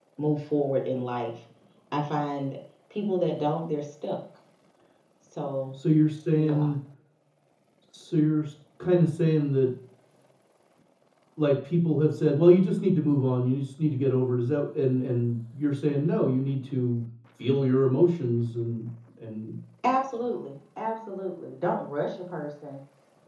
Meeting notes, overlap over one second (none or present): none